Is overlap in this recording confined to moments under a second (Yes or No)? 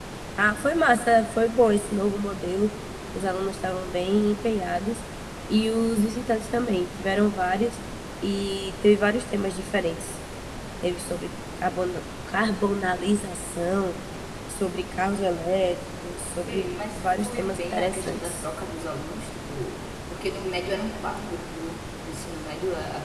No